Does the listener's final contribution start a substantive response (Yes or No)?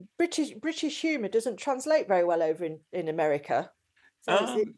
No